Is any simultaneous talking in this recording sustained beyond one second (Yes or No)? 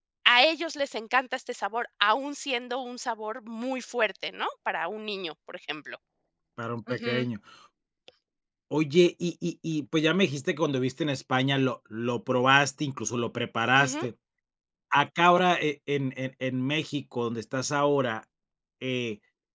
No